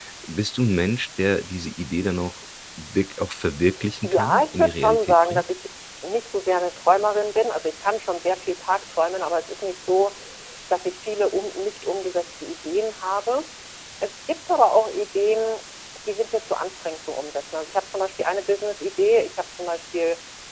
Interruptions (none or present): present